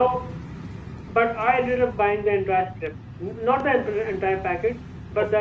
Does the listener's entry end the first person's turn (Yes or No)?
No